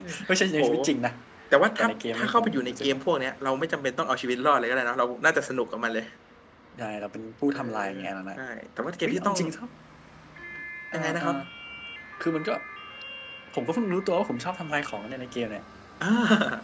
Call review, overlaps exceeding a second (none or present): present